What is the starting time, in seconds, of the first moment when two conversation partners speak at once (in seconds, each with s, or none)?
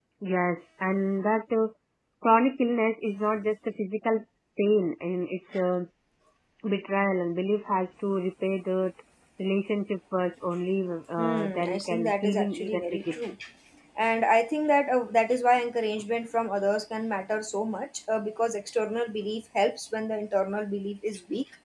11.2 s